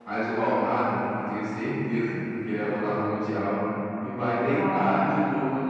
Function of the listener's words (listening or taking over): listening